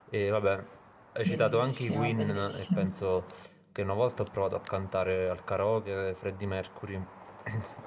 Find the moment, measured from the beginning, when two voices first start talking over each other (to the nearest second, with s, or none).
1 s